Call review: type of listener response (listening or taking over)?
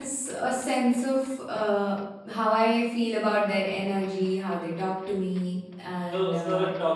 taking over